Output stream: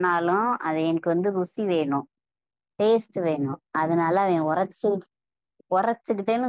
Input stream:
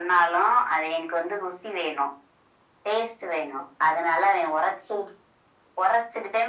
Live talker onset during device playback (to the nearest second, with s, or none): none